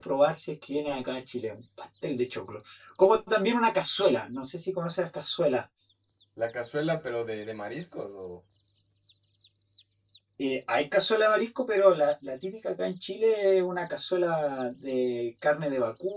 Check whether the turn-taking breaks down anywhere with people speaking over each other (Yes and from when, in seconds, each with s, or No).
No